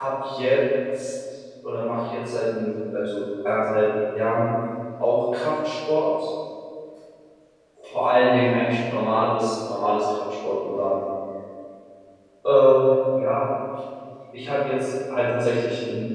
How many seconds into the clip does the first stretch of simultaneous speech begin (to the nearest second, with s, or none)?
none